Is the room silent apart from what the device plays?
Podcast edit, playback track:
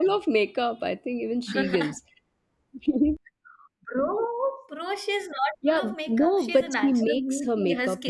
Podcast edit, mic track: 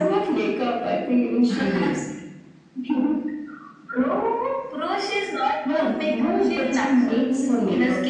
Yes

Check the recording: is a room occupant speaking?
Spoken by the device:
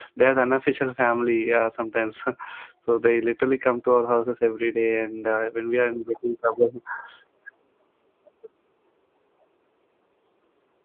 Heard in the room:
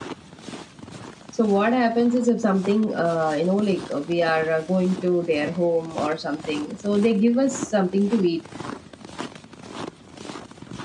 Yes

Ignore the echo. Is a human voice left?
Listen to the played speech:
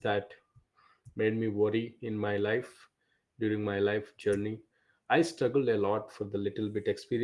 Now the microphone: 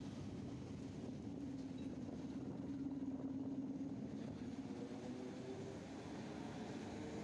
No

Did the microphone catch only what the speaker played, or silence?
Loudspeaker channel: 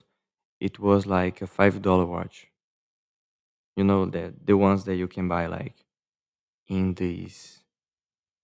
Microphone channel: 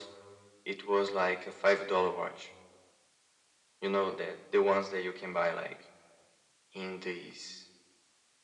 Yes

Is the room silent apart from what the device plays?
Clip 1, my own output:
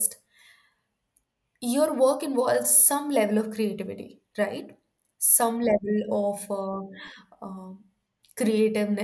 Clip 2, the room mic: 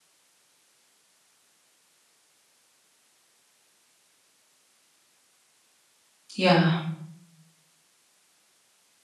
No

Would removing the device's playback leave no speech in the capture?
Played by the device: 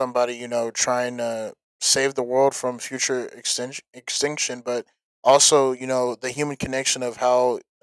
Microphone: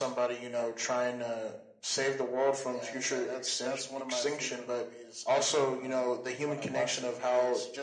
No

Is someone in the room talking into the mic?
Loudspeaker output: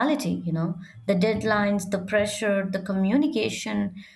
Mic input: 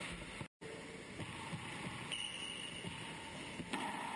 No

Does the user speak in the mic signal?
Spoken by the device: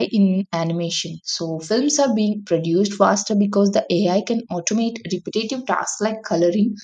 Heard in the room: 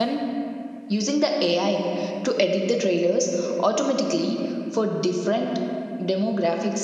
Yes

